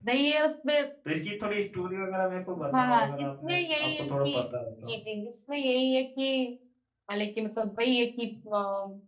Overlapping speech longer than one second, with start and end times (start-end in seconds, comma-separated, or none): 2.8-4.4